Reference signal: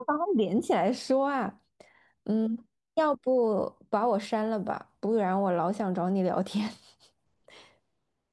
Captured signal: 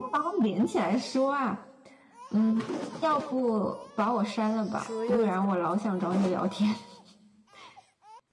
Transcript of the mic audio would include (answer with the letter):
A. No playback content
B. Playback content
B